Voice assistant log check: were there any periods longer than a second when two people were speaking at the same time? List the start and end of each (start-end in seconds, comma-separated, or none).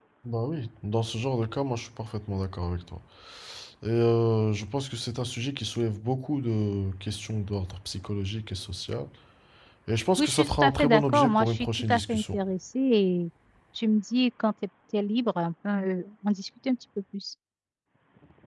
10.2-12.4